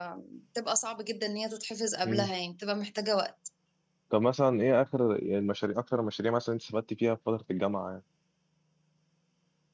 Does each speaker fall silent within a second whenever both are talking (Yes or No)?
Yes